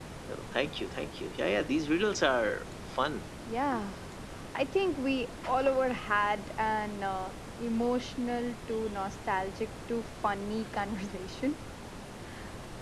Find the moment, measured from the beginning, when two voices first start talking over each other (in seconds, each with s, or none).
none